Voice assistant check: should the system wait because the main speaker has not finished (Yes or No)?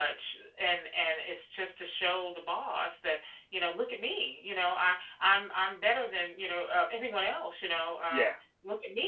Yes